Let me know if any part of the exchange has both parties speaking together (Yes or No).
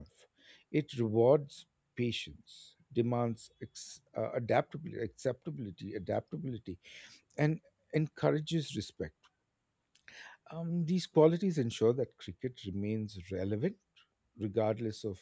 No